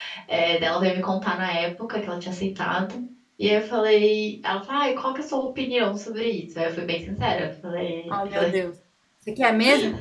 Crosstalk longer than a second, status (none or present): none